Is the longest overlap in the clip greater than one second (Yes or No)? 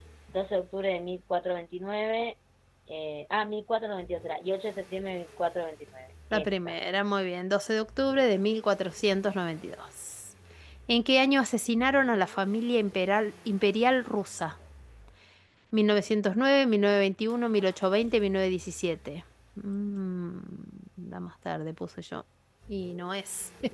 No